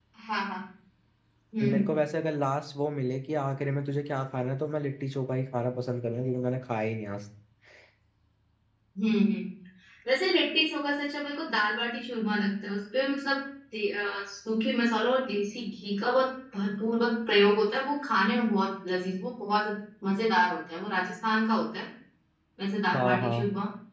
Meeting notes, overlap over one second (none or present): none